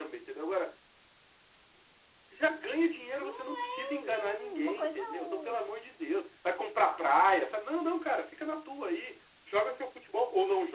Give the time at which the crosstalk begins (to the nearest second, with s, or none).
3 s